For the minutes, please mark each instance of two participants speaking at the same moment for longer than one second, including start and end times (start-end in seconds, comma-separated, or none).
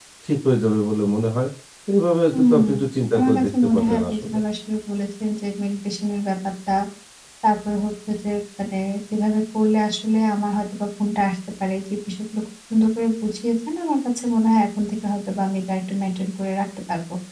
3.1-4.4